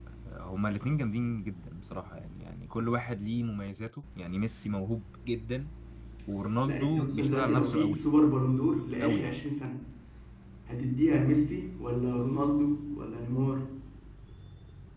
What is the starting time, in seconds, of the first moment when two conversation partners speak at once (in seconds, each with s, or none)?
6.7 s